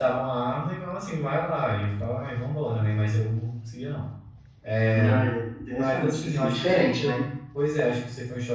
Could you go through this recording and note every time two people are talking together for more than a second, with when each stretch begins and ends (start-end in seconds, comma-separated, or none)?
5.7-7.2